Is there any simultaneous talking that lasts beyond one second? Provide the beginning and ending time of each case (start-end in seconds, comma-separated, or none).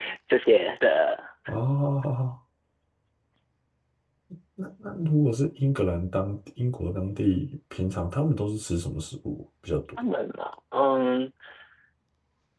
none